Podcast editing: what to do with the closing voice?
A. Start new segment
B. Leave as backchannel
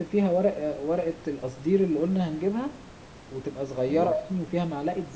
B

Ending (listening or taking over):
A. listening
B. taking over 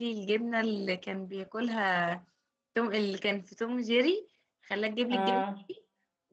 A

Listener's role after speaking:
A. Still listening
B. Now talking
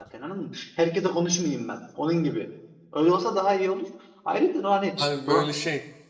B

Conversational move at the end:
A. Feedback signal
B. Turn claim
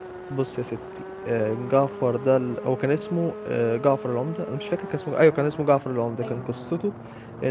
A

